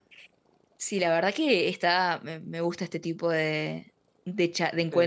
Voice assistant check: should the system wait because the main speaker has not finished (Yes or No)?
Yes